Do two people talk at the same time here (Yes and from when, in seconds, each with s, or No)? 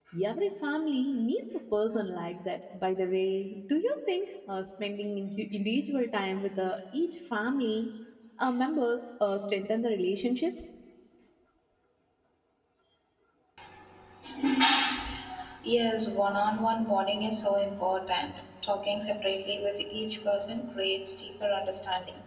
No